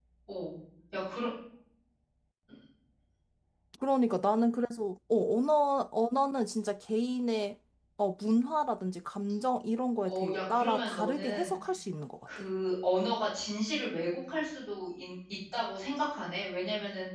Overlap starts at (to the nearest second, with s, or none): 10 s